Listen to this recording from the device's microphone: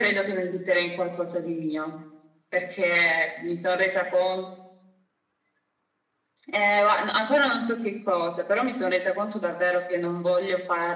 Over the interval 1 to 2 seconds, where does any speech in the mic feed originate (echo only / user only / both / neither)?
echo only